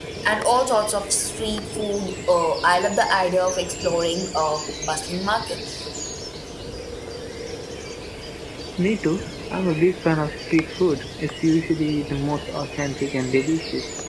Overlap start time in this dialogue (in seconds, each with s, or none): none